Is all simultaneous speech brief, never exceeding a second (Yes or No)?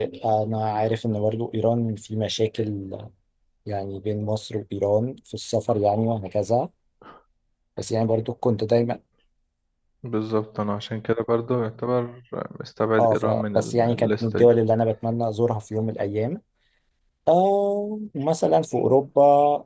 No